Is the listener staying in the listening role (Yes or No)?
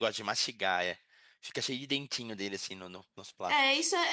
No